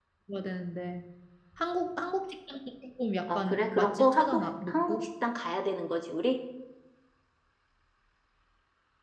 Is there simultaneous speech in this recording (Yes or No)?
Yes